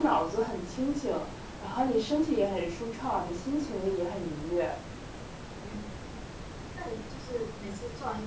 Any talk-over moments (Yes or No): No